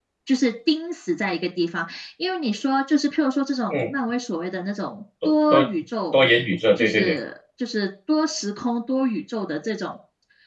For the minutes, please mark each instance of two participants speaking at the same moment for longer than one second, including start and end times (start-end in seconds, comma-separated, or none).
none